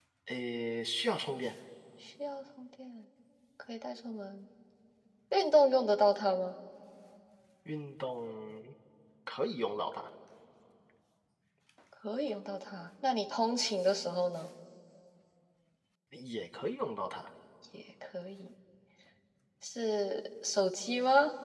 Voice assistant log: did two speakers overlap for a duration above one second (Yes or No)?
No